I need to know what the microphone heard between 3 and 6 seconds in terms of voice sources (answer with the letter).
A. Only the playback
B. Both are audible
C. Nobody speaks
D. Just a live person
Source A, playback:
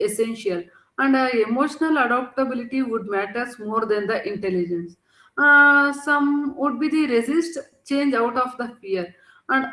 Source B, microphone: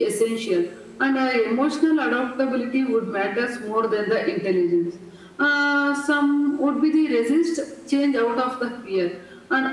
A